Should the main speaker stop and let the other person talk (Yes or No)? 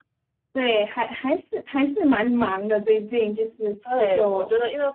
Yes